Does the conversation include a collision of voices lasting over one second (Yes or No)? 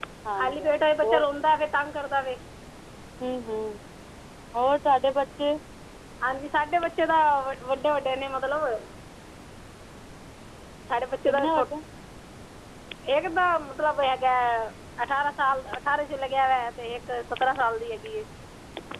No